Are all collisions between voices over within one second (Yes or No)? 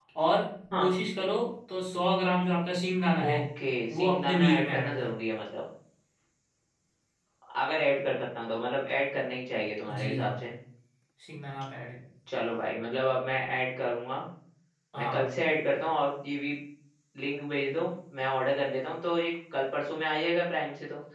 No